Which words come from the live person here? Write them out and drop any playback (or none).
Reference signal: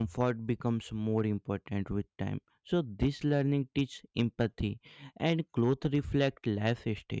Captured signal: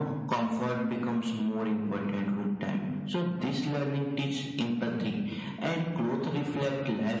none